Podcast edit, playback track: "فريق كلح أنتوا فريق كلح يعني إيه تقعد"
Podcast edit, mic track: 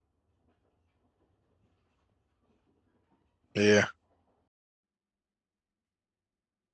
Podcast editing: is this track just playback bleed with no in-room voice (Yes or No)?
No